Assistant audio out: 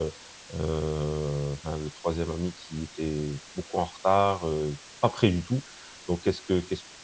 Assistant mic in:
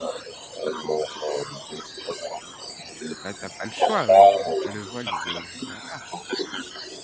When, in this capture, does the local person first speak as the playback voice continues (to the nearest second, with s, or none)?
3 s